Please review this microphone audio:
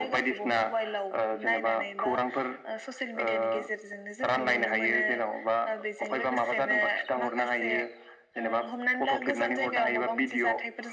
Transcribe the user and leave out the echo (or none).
none